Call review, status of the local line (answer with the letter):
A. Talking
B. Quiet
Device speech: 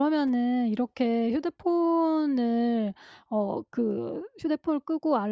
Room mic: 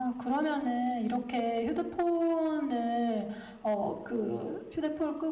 B